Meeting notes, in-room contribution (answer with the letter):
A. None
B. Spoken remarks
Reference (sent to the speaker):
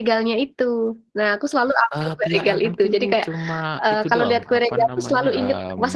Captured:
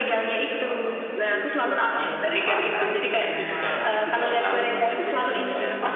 B